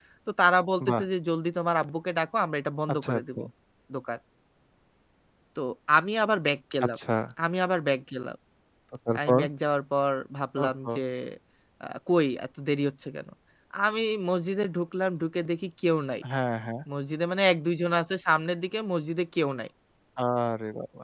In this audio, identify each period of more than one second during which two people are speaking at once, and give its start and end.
none

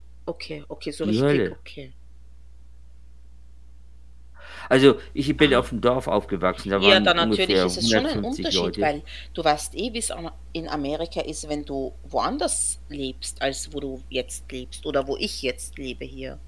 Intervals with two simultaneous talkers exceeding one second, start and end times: 6.8-8.9

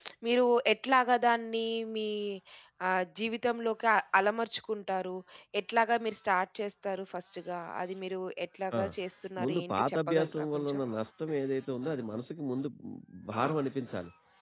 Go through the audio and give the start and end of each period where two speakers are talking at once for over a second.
9.4-10.8

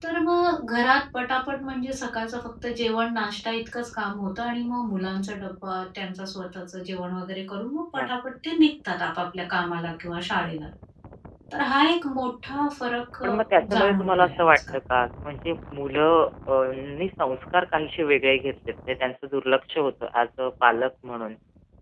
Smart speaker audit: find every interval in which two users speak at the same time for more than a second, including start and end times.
13.2-14.8

